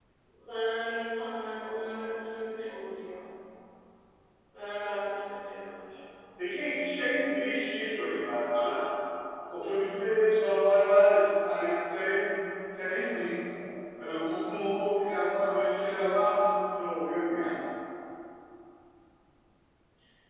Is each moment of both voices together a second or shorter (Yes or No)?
Yes